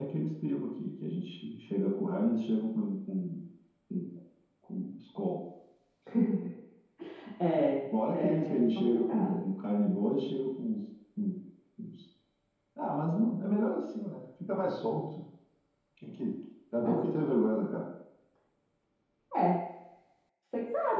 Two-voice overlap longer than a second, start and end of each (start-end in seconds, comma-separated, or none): 8.1-9.4